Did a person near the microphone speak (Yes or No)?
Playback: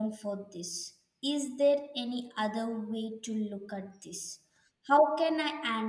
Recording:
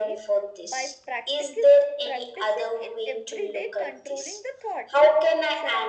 Yes